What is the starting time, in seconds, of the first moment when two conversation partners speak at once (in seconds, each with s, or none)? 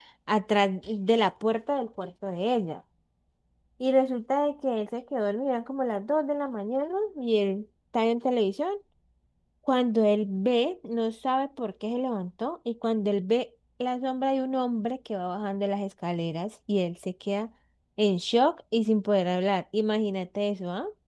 none